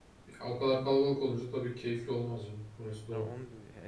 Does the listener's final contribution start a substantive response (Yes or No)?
Yes